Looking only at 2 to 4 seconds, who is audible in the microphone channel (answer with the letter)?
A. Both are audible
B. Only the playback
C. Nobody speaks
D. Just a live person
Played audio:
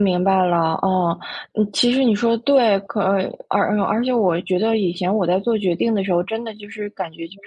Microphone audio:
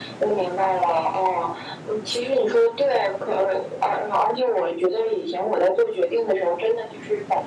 B